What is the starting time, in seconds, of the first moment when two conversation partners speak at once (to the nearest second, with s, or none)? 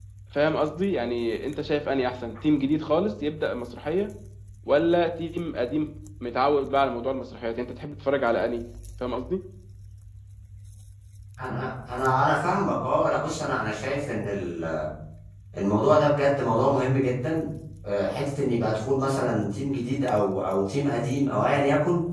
none